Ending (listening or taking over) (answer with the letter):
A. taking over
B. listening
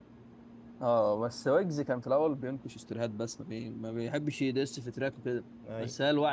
B